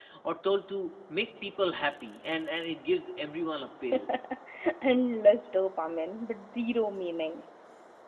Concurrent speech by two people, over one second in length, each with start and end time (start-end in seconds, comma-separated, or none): none